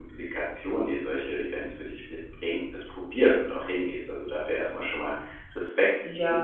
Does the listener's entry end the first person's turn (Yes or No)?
No